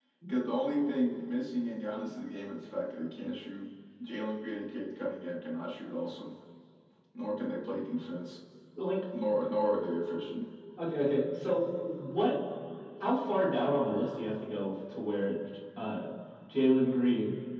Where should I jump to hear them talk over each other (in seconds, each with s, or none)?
none